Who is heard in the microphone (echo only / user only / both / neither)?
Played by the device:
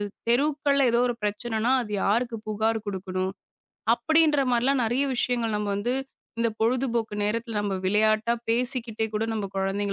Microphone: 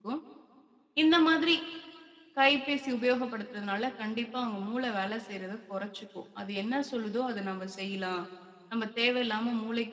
user only